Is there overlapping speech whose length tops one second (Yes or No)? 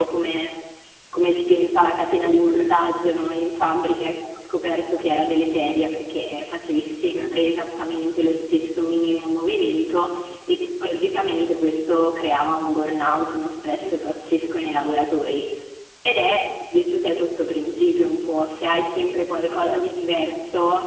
No